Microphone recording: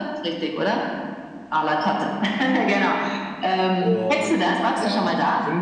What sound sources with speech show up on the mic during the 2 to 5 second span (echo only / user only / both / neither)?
both